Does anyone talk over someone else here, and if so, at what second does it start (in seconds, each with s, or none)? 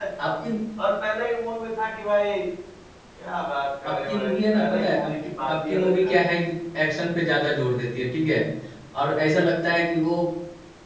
3.8 s